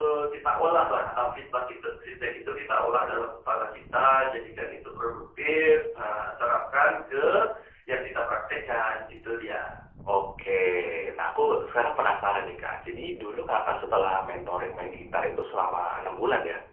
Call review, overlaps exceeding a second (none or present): none